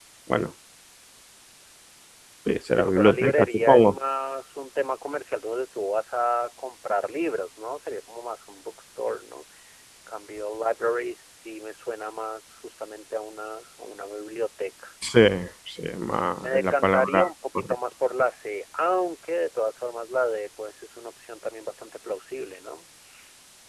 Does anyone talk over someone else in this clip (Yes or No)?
Yes